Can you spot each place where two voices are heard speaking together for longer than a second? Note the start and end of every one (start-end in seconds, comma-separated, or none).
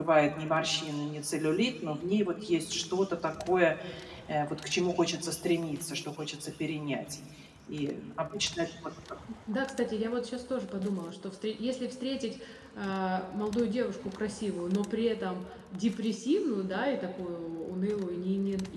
none